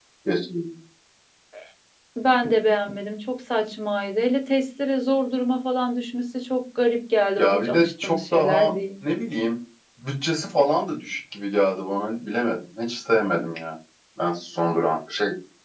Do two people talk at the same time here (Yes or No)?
Yes